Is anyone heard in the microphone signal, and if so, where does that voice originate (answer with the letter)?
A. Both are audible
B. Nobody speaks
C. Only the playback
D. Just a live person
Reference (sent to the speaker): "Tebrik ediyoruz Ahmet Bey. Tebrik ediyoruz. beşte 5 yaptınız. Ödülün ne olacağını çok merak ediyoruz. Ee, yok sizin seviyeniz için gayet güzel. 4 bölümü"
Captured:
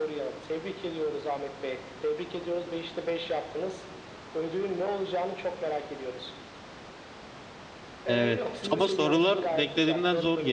A